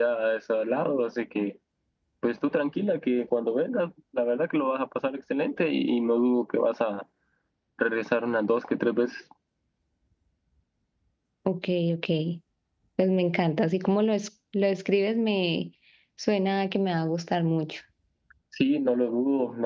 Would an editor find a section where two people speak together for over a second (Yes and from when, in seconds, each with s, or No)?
No